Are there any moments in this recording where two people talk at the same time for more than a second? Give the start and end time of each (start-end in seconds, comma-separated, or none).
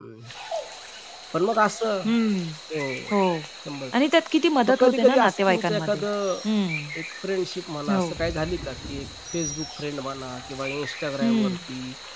4.7-6.0